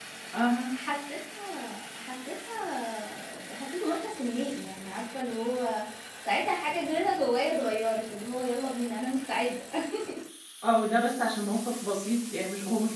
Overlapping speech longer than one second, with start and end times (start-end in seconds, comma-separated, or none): none